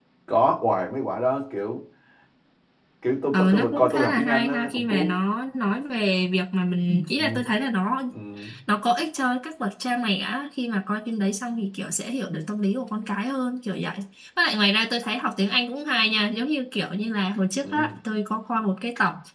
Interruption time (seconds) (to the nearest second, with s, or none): 3 s